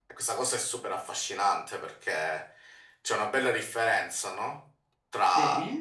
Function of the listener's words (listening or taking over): listening